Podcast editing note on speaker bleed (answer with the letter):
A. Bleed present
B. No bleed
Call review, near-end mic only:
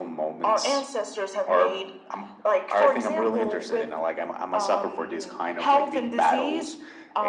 A